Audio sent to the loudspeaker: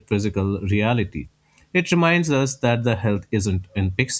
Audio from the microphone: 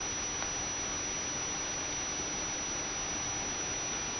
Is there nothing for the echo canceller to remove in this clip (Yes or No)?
Yes